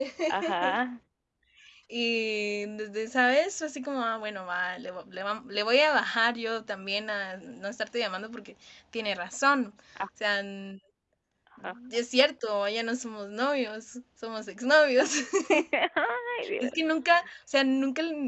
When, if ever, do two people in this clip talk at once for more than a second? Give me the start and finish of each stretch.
none

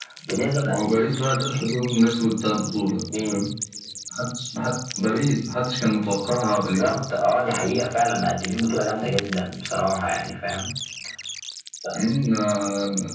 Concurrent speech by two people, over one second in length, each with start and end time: none

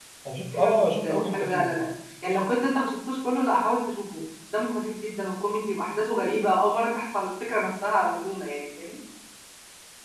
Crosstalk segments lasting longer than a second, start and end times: 0.5-1.8

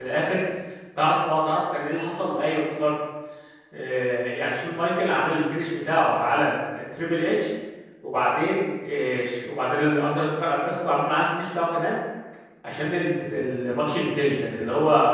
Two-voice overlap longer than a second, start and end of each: none

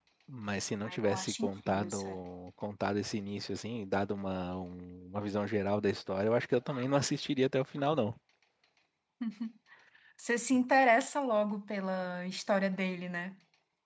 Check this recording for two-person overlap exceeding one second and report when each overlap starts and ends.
0.8-2.1

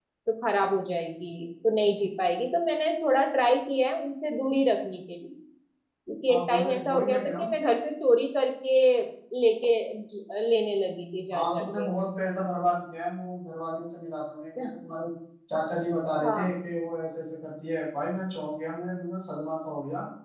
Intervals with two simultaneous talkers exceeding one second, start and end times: 6.3-7.5

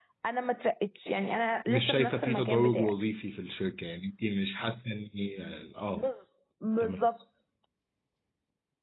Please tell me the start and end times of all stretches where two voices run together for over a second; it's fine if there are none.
1.7-2.9

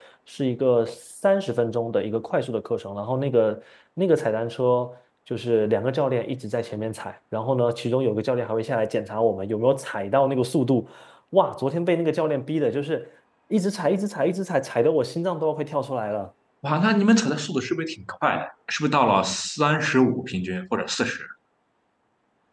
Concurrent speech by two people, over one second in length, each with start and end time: none

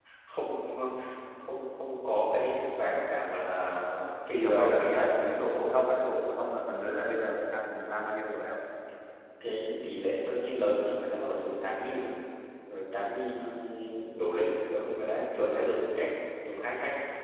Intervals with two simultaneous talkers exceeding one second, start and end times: 4.4-5.6

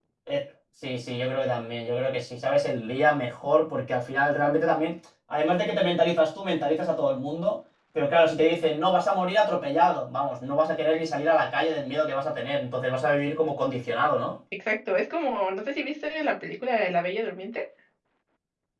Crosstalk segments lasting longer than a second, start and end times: none

